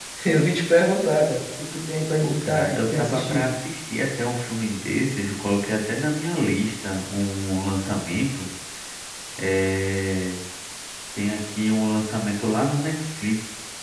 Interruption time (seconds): 2.2 s

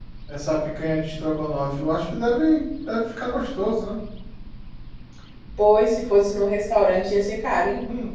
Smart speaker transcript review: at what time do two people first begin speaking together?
none

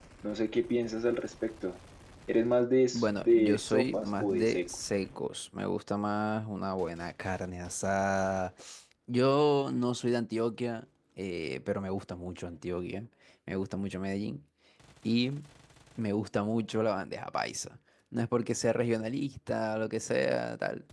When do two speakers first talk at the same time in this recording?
2.9 s

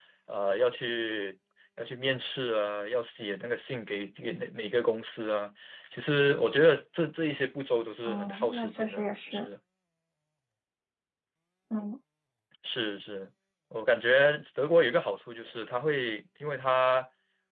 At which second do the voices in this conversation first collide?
8.0 s

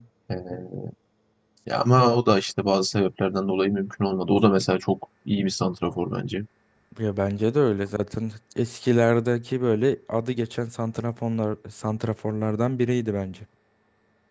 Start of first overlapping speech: none

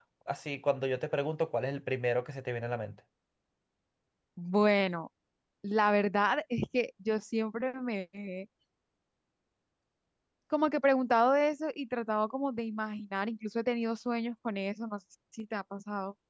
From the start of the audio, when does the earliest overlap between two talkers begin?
none

